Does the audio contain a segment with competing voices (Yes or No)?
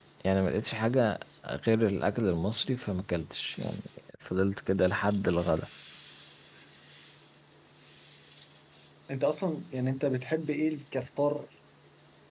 No